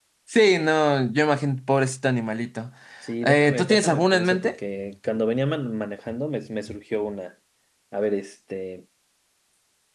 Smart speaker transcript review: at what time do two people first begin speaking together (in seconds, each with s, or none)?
3.2 s